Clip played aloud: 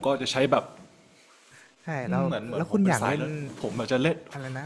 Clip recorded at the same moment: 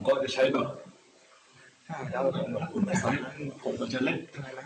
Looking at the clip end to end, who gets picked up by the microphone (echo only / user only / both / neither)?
echo only